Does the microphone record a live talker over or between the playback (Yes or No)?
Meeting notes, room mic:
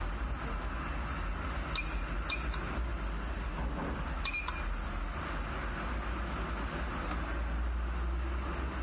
No